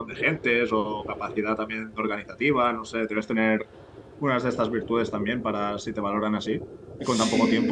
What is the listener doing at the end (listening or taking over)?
taking over